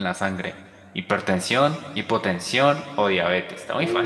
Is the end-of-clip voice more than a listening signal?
Yes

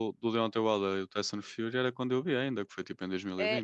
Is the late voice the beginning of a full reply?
Yes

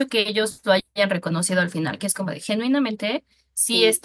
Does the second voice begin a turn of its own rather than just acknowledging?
No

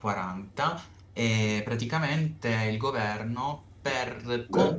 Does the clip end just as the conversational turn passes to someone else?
No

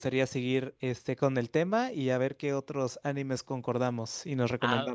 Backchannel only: No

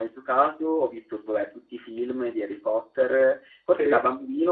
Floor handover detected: No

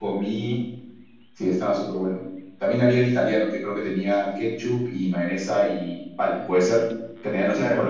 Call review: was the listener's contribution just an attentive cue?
No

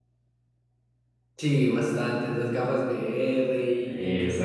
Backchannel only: Yes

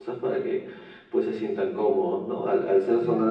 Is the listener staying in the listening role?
Yes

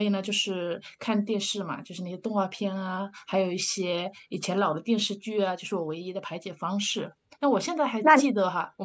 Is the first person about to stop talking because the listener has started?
No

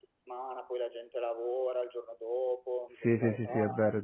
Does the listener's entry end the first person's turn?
Yes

